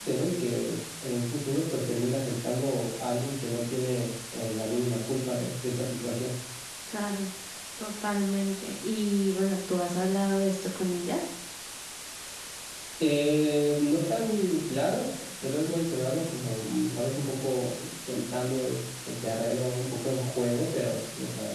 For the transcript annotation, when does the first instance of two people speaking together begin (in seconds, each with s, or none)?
none